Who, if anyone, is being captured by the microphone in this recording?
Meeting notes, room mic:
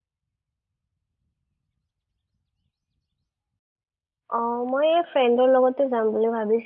user only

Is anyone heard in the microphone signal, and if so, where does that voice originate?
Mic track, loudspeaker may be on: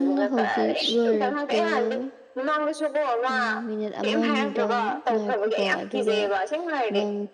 both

